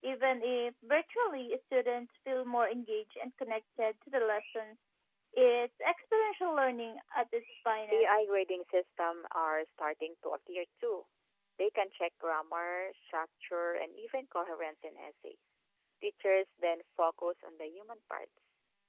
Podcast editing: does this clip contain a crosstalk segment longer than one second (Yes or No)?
No